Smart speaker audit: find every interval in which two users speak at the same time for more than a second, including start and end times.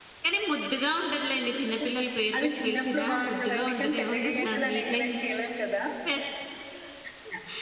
2.4-5.2

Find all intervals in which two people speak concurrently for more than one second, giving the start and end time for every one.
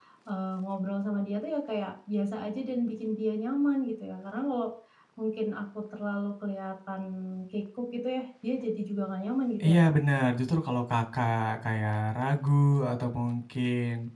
none

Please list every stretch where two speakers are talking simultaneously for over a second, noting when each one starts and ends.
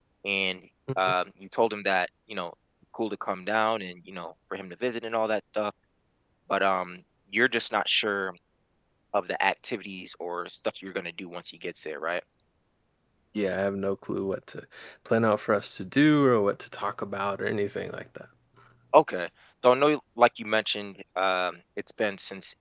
none

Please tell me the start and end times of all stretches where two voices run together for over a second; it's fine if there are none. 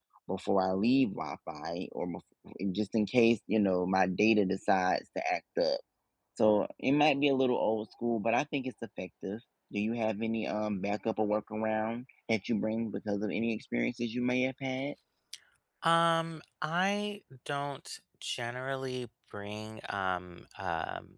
none

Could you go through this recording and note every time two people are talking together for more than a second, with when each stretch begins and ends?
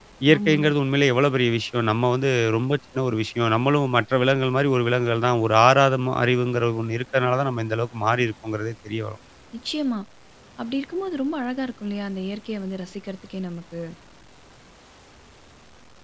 none

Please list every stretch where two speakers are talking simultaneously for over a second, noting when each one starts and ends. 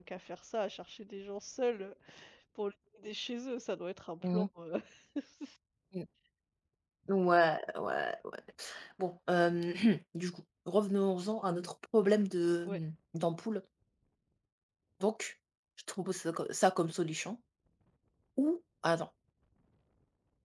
none

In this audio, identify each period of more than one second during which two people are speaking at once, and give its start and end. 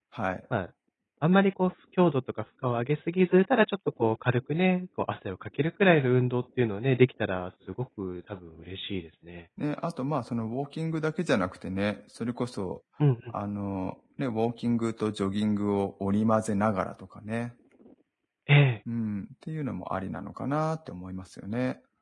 none

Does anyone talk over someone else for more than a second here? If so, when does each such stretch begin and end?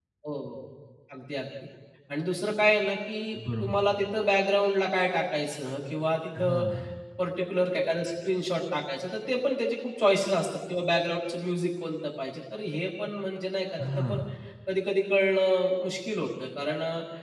none

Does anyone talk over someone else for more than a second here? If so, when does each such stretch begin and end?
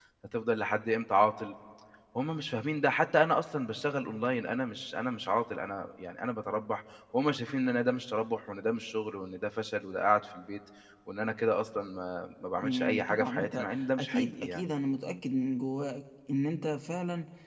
12.6-14.7

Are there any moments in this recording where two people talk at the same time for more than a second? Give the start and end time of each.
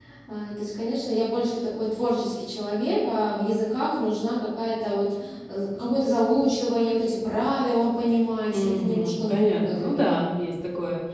8.5-10.2

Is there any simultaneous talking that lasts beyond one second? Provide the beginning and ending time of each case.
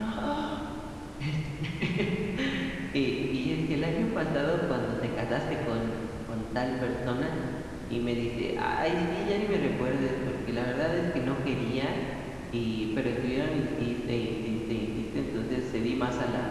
none

